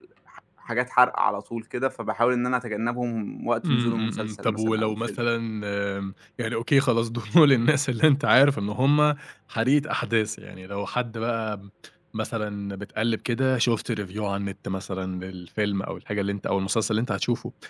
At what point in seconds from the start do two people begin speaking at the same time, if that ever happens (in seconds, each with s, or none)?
3.6 s